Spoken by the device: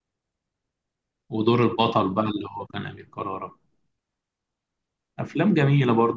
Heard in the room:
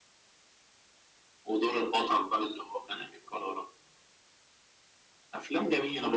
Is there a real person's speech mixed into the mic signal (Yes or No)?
No